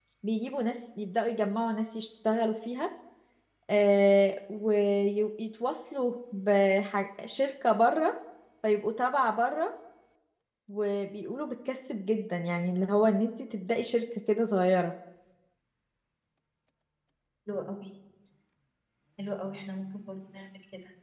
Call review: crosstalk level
none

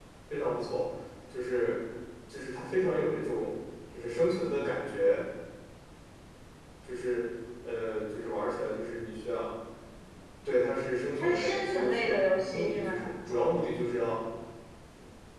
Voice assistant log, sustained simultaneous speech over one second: present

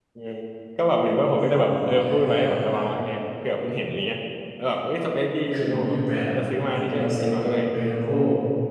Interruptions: present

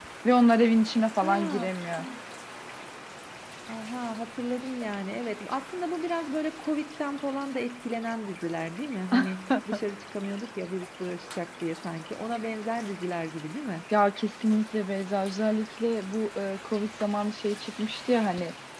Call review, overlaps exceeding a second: none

